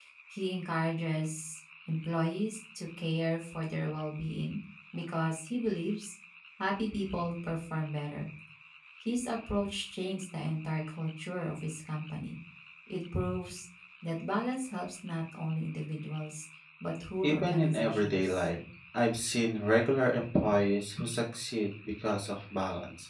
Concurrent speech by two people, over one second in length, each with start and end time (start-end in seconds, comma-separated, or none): 17.2-18.4